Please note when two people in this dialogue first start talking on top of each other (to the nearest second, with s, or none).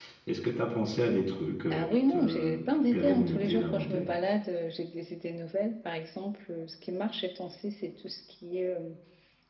2 s